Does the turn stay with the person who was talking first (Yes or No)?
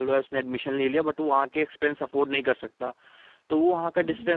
Yes